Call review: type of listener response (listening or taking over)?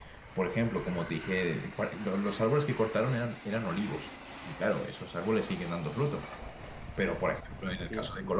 listening